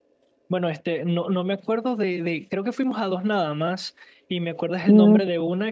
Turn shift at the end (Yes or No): No